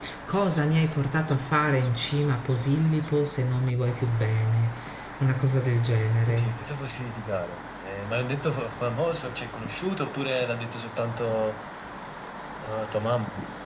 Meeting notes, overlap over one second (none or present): none